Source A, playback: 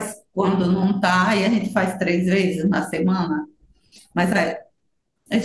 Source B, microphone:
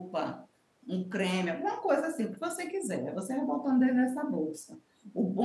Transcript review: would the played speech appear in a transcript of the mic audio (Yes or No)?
No